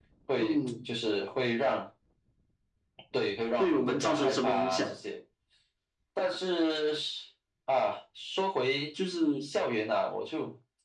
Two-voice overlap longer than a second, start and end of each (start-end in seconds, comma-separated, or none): 3.6-5.0